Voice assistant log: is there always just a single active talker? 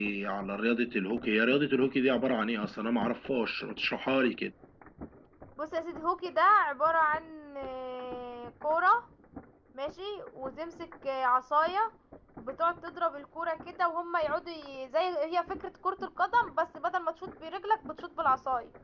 Yes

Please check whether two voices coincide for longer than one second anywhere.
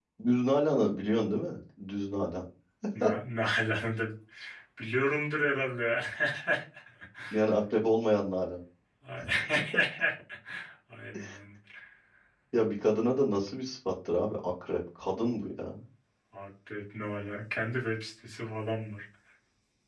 No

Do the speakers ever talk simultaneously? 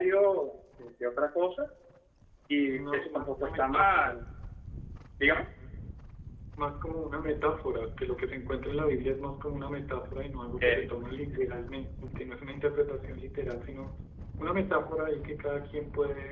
Yes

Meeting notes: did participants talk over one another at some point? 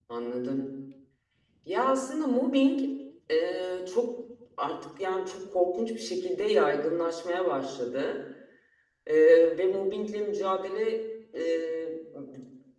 No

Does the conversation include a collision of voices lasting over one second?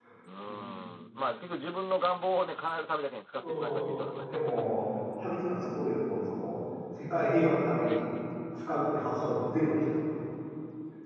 No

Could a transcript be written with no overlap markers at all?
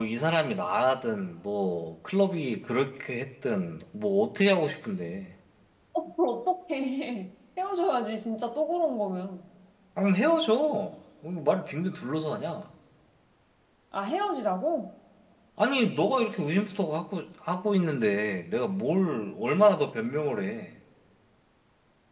Yes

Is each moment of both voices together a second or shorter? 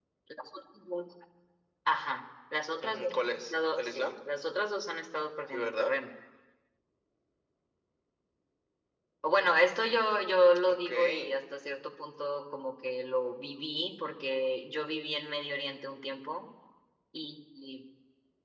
No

